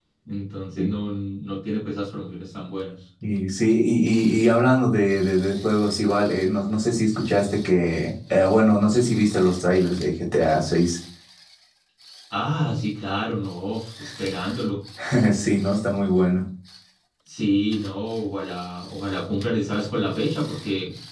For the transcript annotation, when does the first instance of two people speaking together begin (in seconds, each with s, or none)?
none